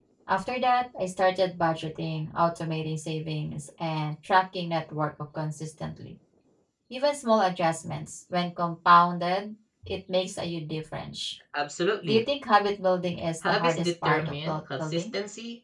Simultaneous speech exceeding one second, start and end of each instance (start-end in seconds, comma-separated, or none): 13.5-15.1